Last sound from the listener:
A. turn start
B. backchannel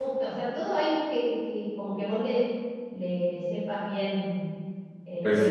A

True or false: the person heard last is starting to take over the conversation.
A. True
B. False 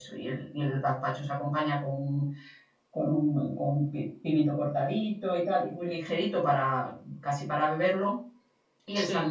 B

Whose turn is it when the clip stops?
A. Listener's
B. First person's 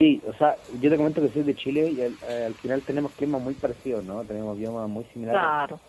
B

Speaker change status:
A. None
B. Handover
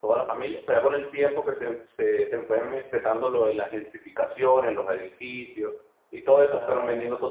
A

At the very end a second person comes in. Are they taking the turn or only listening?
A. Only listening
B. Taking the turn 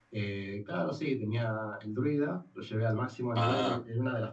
A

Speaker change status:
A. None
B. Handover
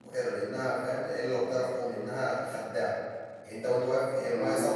A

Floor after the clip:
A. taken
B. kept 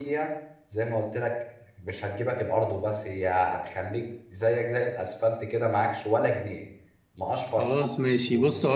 A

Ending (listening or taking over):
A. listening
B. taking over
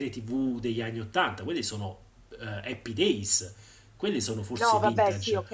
B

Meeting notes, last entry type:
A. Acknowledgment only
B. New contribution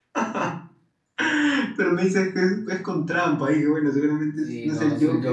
B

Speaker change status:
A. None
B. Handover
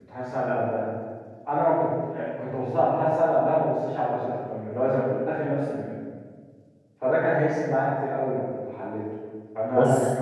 A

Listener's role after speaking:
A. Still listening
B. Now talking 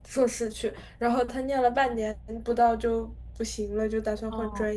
A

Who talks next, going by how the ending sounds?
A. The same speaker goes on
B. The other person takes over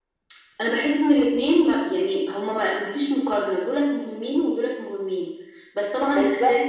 A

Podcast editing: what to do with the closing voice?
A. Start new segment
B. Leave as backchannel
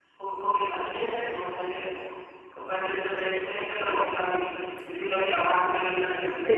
A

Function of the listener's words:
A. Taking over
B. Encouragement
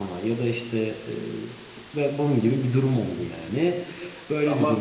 B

